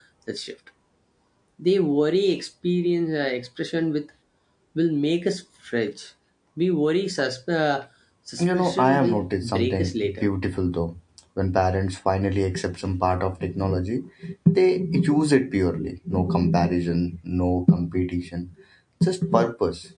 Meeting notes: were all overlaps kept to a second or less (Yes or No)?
No